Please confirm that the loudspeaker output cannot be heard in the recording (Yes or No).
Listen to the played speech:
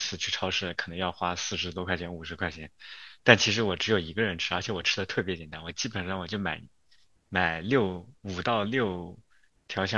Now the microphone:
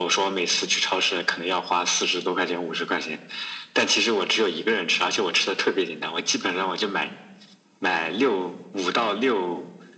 No